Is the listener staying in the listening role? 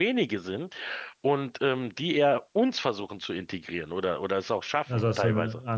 No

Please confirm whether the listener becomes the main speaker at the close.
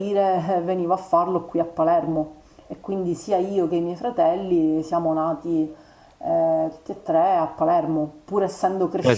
Yes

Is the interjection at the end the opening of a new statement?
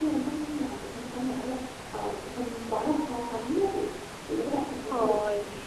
Yes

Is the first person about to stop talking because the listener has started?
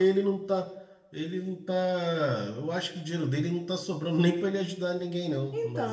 Yes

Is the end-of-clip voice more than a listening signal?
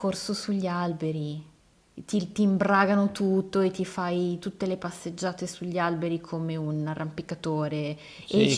Yes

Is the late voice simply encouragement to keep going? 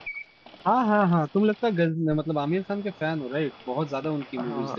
No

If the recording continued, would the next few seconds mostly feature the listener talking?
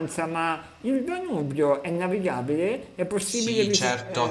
Yes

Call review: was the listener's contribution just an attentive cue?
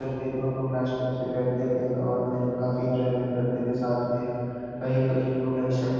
Yes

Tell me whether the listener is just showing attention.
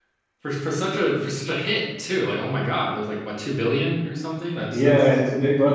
No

